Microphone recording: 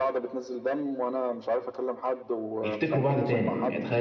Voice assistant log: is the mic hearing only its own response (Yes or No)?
No